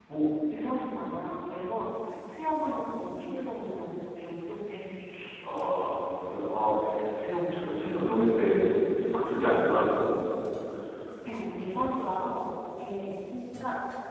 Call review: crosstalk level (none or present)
none